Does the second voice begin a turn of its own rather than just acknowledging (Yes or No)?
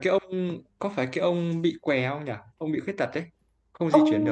Yes